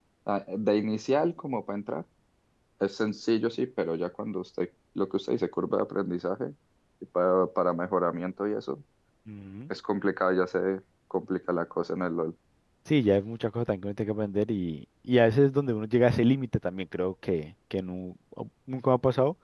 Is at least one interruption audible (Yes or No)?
No